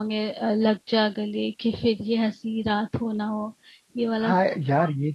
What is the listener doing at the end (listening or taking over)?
taking over